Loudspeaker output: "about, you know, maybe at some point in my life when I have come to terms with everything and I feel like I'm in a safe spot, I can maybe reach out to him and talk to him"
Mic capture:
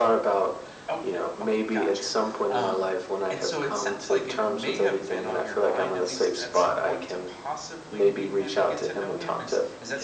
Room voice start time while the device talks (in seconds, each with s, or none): 0.9 s